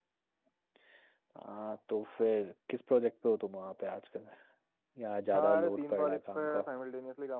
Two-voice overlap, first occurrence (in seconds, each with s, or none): 5.4 s